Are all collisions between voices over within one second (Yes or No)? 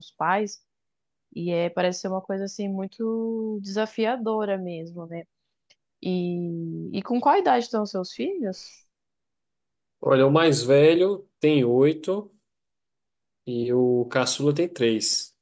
Yes